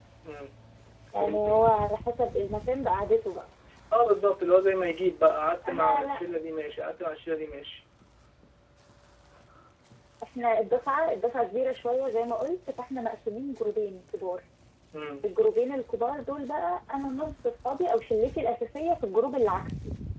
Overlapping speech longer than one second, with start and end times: none

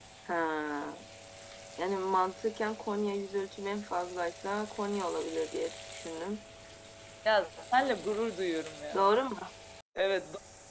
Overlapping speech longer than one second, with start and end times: none

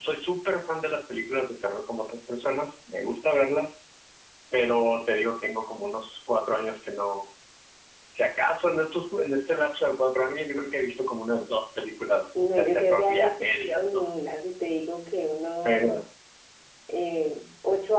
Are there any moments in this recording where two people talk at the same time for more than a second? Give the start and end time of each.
12.5-14.1

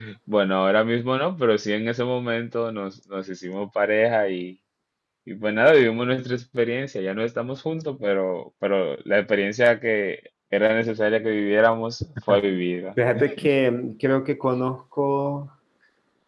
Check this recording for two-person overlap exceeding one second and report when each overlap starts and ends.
none

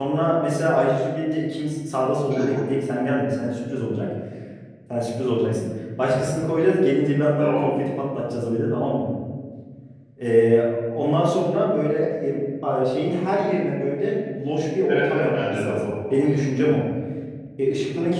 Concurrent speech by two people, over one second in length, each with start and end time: 14.9-16.2

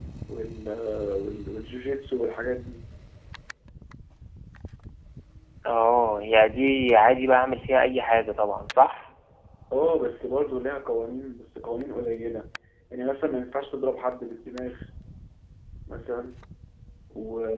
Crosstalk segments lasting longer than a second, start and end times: none

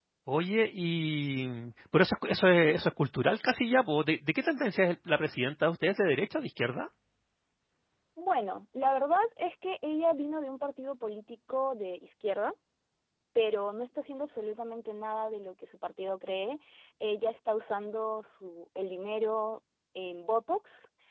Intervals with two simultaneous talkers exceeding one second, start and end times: none

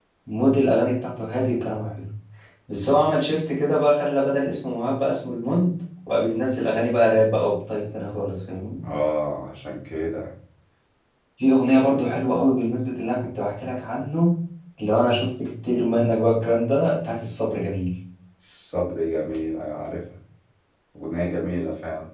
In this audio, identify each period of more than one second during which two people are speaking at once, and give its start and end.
none

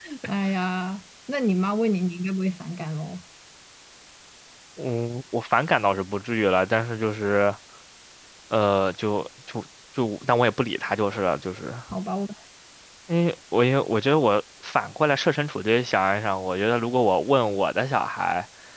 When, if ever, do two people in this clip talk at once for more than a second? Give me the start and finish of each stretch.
none

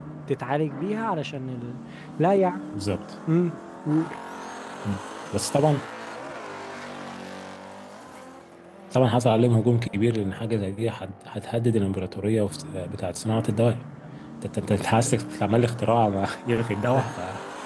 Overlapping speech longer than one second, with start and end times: none

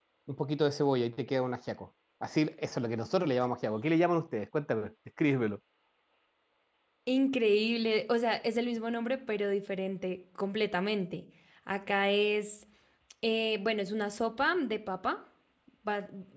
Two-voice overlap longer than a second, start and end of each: none

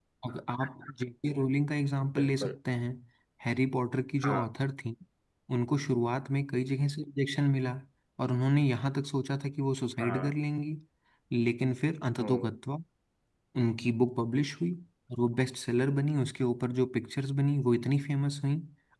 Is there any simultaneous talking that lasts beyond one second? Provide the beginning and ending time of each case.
none

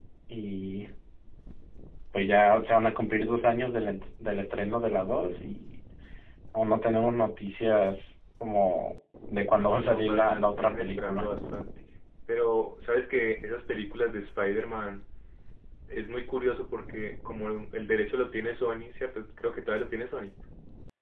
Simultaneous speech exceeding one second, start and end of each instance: 9.6-11.3

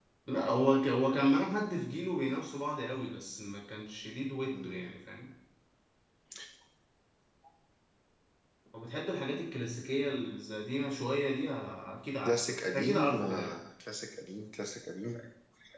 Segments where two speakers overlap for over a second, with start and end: 12.2-13.6

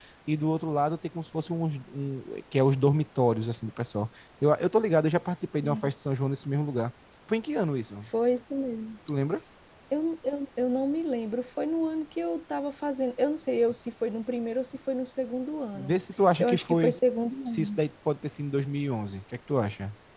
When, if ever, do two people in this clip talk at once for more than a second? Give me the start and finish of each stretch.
none

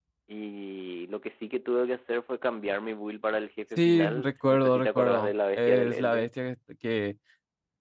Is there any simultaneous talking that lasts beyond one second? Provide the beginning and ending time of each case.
3.8-6.3

